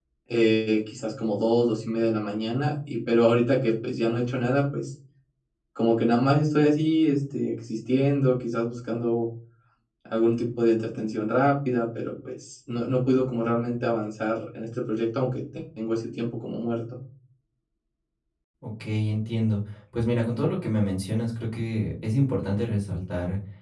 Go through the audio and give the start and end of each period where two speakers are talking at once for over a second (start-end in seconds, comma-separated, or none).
none